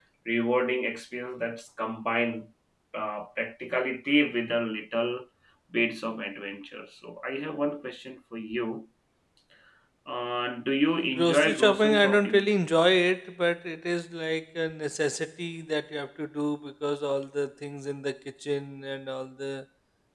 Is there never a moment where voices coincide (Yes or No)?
No